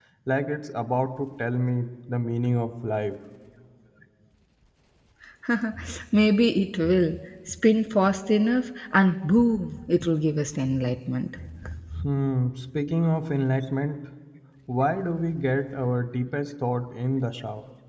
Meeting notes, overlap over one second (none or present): none